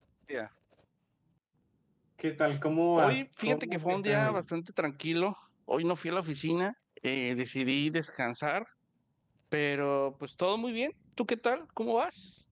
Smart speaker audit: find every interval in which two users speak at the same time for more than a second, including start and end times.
3.0-4.4

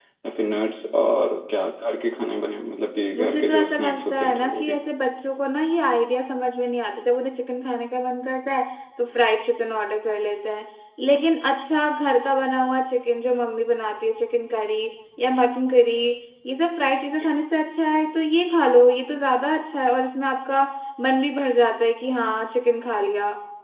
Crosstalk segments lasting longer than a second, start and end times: 3.2-4.7

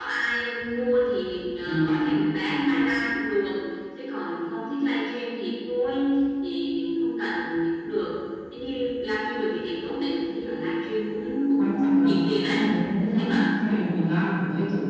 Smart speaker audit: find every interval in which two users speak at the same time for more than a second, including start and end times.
11.6-13.3

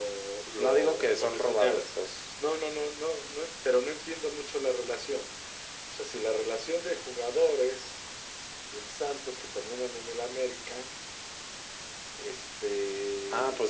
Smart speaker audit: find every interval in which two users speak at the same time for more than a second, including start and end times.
0.6-1.8

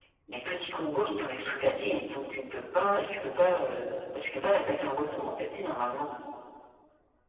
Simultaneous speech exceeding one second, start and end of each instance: none

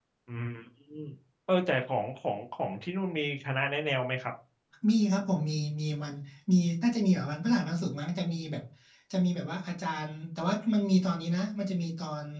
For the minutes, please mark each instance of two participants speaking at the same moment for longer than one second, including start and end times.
none

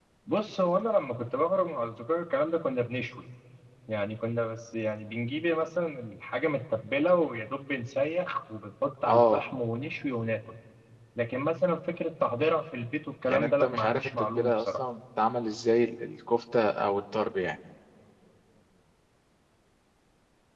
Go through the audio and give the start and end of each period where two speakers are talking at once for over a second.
13.3-14.7

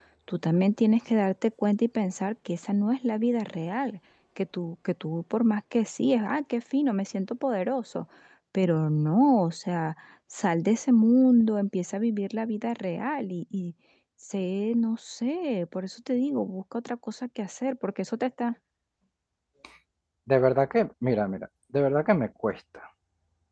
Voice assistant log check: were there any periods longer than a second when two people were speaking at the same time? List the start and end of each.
none

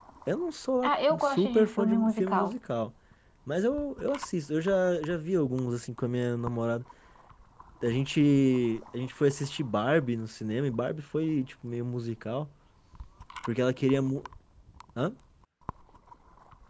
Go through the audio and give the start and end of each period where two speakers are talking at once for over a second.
0.8-2.5

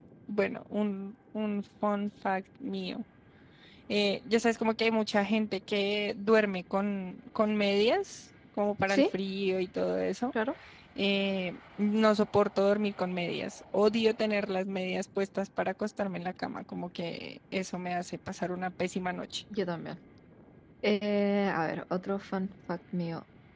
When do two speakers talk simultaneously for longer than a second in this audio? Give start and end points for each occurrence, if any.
none

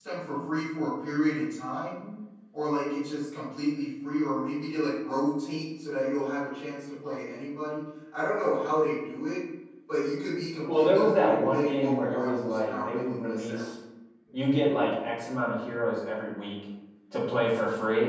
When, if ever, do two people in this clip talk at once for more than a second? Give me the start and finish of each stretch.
10.7-13.7

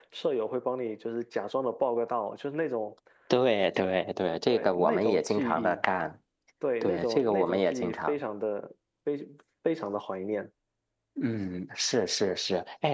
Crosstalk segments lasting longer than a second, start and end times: 4.5-5.8, 6.8-8.2

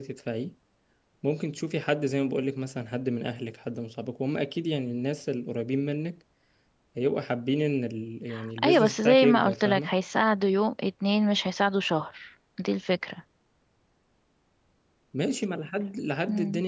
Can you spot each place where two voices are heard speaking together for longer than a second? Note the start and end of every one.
8.6-9.9

